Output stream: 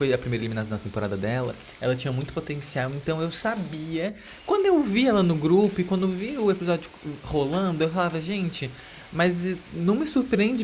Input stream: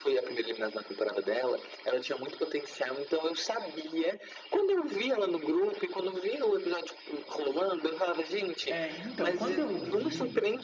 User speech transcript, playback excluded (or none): É, então, quando eu vi